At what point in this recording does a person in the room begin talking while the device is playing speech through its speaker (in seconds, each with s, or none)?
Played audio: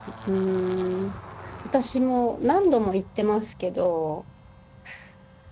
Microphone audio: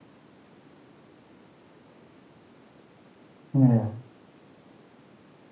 3.6 s